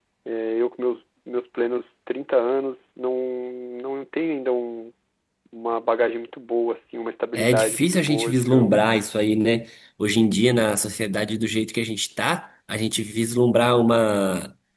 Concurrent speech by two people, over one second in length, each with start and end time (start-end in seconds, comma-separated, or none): 7.4-8.9